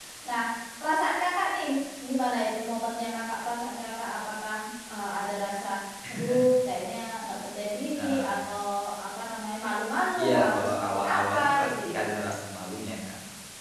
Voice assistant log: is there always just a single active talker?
No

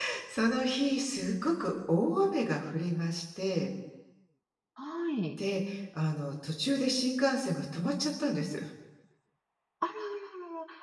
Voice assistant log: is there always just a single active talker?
Yes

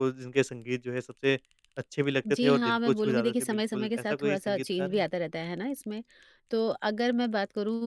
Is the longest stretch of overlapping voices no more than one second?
No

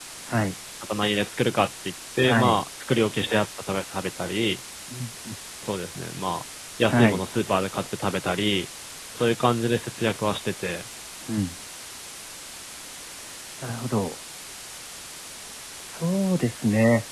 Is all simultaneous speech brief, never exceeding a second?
Yes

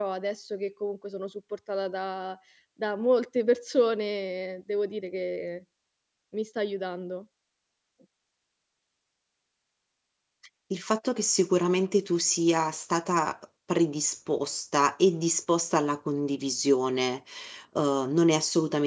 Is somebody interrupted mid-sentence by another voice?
No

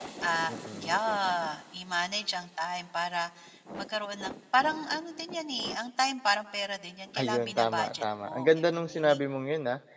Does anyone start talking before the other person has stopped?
Yes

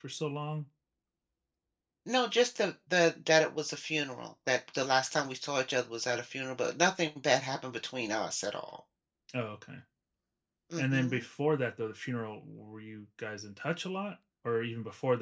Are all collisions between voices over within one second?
Yes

